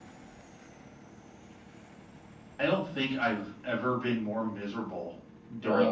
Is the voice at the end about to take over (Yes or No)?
No